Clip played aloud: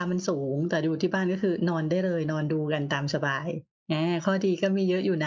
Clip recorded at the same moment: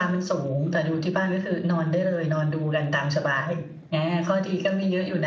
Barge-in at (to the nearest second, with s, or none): none